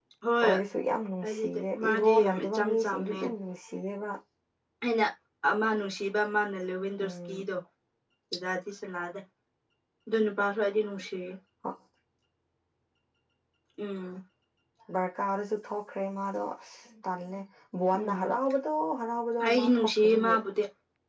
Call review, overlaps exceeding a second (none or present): present